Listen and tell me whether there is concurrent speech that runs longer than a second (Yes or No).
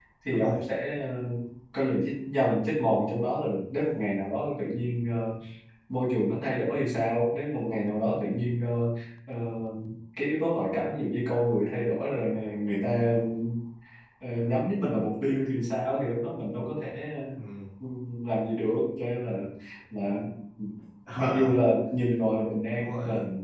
No